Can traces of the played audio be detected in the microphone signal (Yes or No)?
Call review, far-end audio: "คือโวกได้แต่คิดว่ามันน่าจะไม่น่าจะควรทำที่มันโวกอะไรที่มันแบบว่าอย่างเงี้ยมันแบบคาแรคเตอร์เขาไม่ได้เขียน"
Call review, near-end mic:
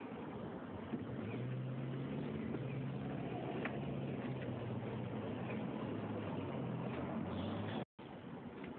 No